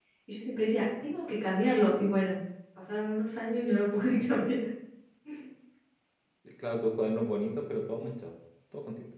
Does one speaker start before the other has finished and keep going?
No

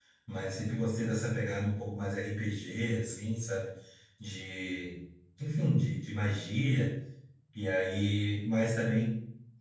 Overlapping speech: No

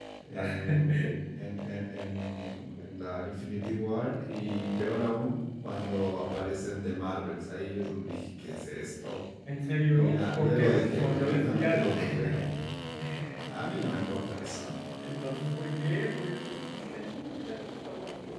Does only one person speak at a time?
No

